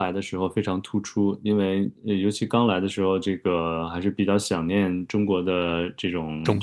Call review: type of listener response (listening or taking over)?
listening